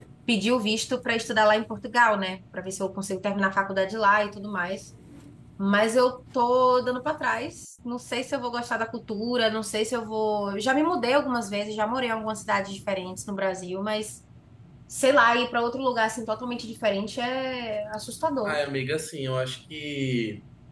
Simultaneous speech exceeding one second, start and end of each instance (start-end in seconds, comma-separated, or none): none